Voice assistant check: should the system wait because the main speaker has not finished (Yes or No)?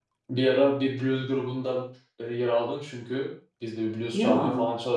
Yes